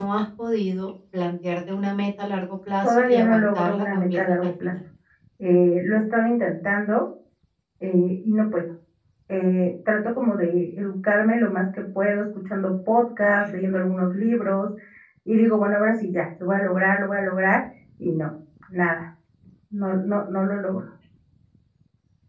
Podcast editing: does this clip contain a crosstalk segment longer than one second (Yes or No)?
Yes